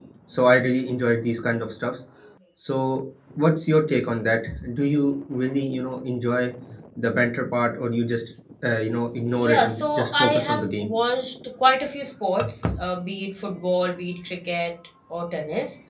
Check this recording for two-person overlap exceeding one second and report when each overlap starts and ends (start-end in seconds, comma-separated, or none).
9.3-10.9